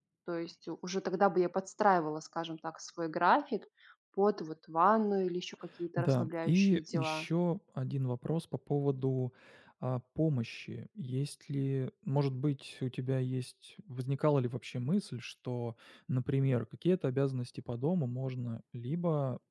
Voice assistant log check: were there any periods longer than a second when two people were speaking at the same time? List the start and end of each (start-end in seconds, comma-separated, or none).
6.0-7.2